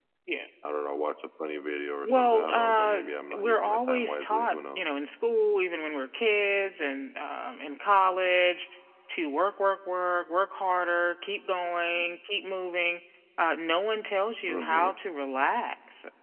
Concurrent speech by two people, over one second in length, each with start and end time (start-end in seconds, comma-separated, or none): 2.0-4.8